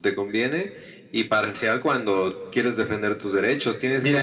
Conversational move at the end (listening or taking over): taking over